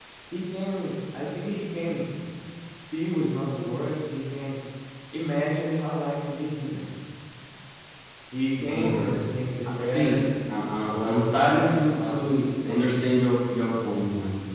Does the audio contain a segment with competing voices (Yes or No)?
Yes